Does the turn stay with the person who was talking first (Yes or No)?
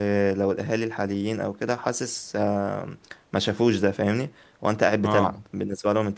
Yes